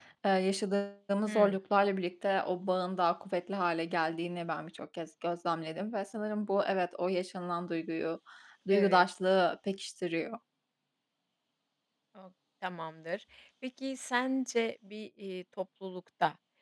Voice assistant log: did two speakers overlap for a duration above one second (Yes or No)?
No